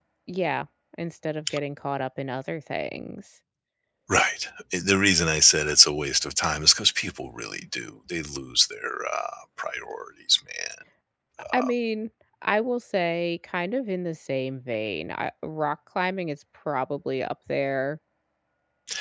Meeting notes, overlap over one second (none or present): none